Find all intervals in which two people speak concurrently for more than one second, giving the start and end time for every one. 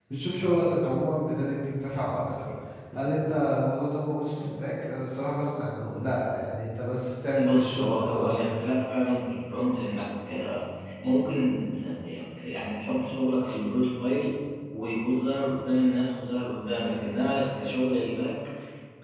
7.4-8.6

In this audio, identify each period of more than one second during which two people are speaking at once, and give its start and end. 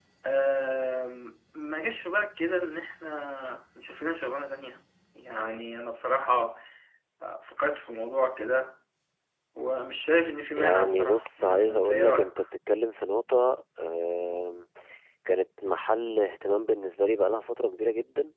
10.5-12.3

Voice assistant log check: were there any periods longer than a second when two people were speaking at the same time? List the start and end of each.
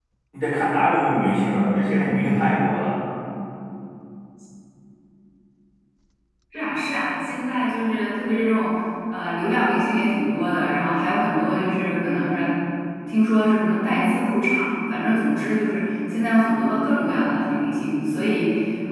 none

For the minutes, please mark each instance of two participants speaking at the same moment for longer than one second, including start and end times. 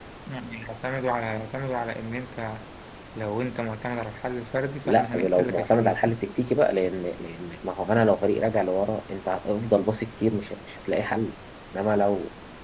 4.8-6.1

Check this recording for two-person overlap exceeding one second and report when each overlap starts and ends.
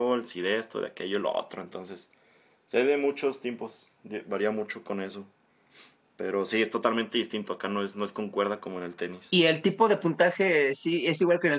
none

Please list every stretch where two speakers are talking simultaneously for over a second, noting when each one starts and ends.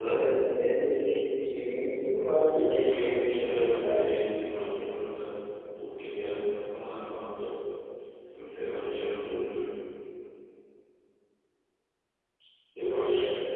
2.1-4.0

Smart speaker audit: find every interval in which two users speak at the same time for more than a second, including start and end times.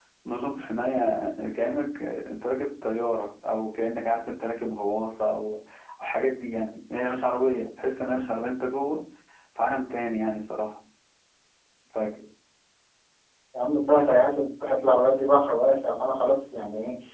none

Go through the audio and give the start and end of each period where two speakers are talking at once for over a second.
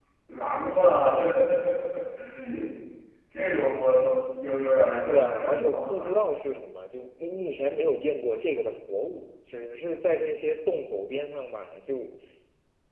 4.9-6.2

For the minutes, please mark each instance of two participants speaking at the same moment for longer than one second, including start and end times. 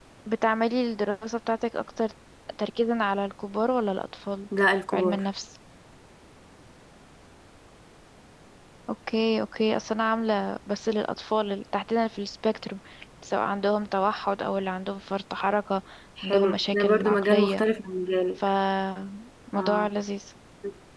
16.2-17.6

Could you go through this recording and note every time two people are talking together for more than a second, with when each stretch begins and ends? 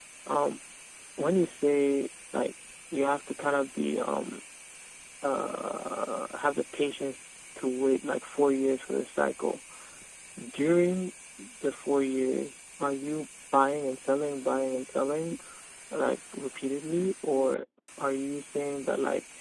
none

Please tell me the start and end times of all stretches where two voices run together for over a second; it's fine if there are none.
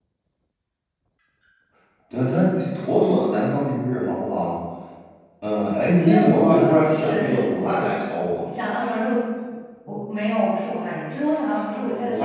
6.0-7.8

